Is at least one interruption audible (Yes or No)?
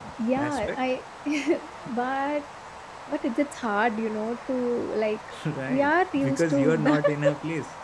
Yes